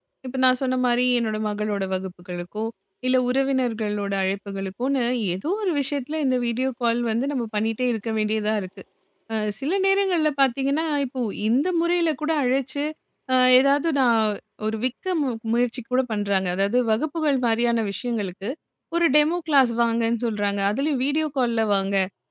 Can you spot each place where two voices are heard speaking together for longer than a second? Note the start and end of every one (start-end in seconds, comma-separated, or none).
none